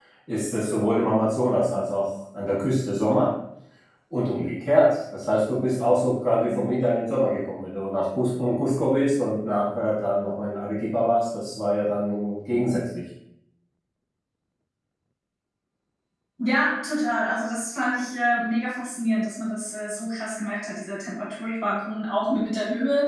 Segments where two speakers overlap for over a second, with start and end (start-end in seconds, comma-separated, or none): none